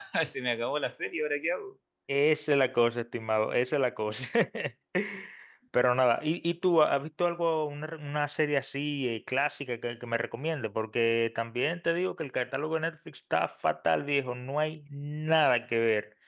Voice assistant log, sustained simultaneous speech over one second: none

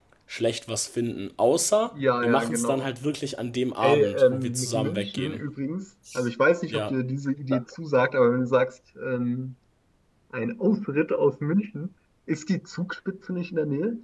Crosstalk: present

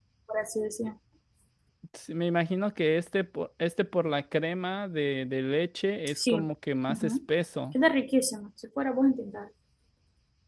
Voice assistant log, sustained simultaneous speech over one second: none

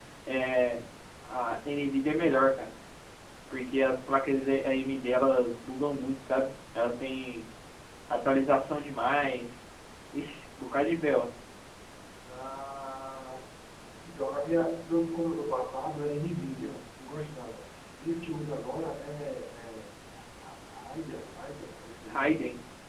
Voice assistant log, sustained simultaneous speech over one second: none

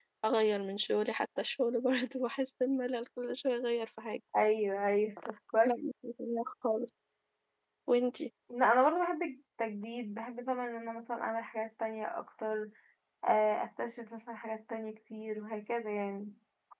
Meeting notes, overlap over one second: none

